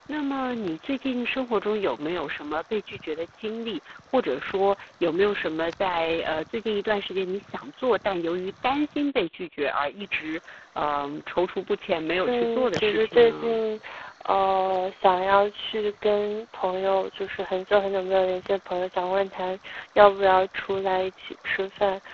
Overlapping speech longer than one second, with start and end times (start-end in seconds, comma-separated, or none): 12.3-13.6